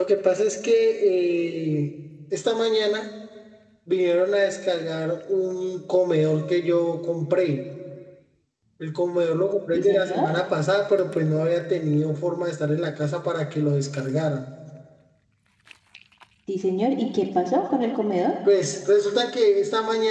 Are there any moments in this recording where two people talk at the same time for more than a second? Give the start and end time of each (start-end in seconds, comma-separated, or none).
none